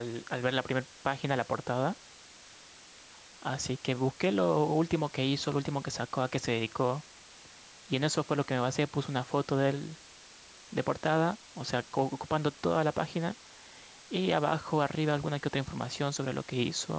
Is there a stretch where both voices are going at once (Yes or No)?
No